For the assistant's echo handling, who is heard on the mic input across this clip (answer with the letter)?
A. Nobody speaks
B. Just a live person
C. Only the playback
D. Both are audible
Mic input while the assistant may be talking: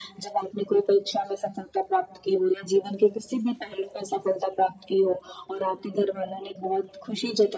C